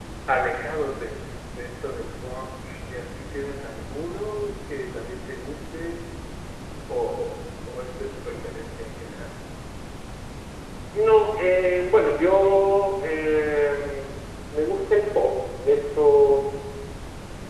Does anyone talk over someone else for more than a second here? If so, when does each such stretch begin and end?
none

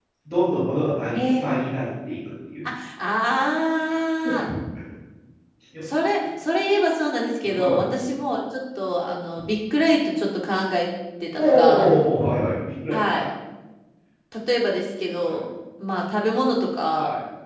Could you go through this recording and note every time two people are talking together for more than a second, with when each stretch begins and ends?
none

